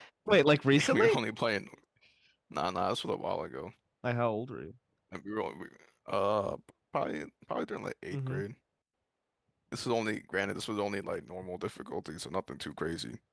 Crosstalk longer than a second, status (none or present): none